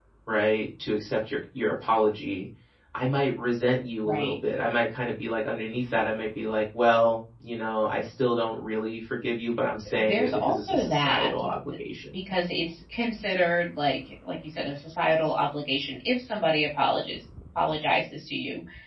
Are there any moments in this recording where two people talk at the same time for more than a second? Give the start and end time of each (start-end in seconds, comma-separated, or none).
10.0-11.5